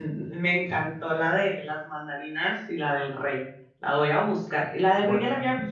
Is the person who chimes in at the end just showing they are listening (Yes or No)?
Yes